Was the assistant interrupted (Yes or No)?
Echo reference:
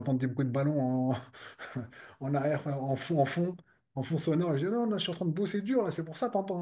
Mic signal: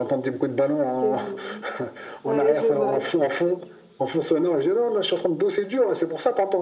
Yes